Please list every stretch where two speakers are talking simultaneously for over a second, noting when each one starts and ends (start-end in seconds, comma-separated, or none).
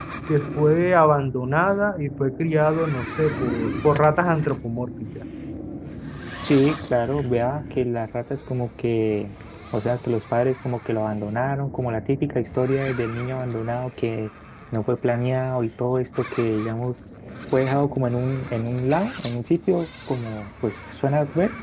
none